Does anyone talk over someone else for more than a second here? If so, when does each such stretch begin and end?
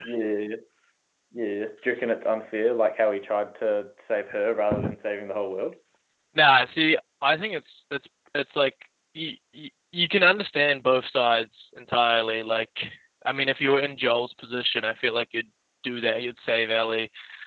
none

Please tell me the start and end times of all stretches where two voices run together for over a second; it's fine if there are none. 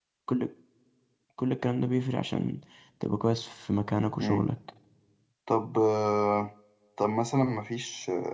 none

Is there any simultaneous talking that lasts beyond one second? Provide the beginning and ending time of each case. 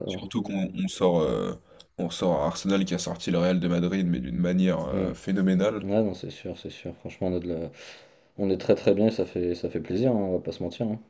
none

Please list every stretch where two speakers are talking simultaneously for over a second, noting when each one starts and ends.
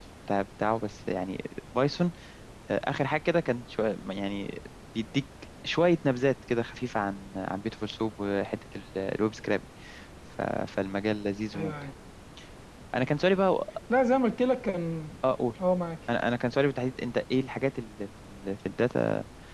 none

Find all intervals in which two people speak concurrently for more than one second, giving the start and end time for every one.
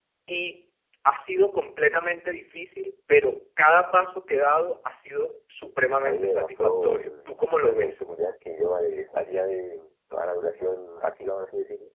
6.0-8.0

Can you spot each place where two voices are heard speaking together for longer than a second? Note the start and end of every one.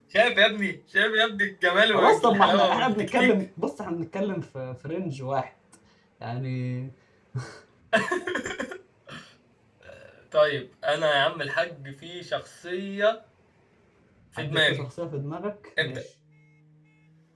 1.9-3.3

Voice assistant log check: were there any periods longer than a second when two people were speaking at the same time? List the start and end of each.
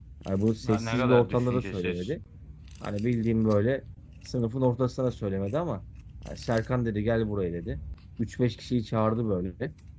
0.6-2.1

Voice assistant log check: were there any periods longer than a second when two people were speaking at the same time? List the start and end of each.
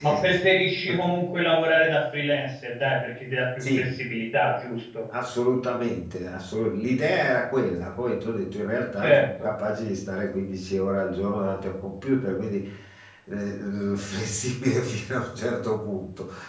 none

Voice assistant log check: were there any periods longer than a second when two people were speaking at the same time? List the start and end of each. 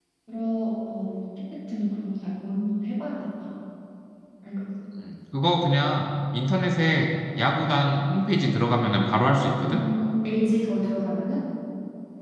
none

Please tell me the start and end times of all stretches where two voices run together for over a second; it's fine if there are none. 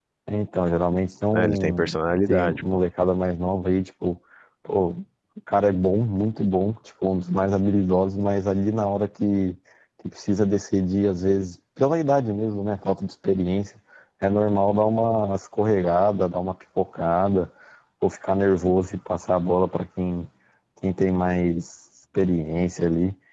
1.3-2.6

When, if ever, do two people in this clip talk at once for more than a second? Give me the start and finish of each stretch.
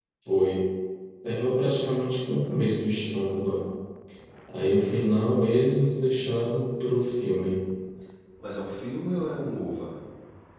none

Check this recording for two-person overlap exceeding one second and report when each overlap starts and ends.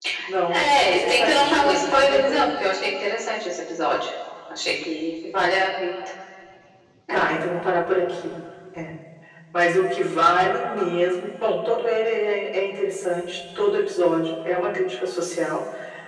0.5-2.4

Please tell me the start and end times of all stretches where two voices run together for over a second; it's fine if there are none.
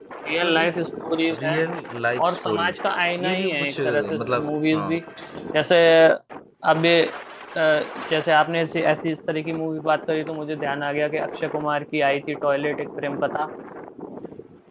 3.2-5.0

